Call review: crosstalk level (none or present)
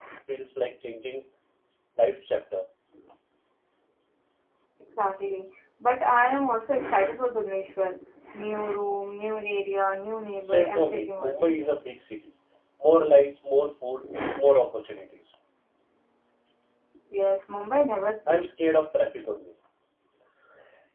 present